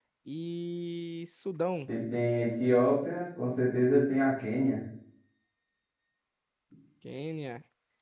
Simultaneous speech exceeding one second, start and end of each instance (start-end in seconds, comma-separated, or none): none